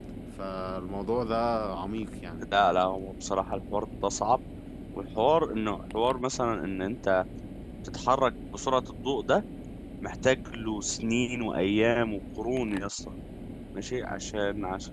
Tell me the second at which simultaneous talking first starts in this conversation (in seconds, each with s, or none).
none